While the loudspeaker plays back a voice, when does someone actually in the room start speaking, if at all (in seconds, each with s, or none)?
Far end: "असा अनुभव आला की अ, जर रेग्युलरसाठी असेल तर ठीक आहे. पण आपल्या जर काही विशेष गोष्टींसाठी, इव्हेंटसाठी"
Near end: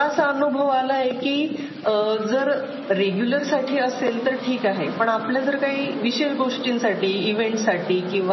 none